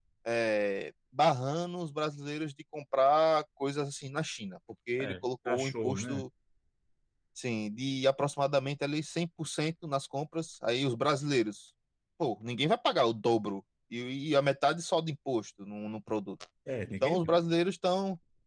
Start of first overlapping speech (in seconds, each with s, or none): 5.0 s